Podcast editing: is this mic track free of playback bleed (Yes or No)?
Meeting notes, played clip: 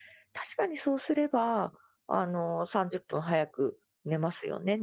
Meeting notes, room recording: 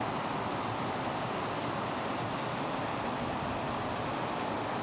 Yes